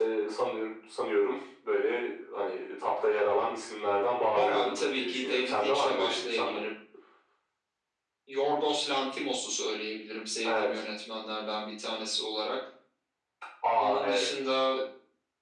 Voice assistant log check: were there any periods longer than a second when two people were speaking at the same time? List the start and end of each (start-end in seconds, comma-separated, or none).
4.3-6.6